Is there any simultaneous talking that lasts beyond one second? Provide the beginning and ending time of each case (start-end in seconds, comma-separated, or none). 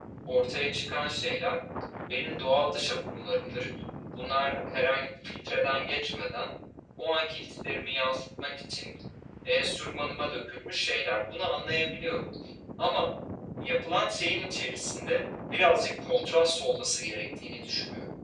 none